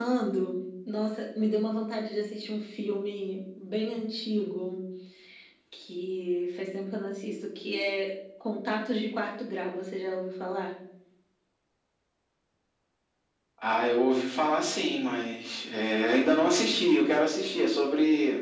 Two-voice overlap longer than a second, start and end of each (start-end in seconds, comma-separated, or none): none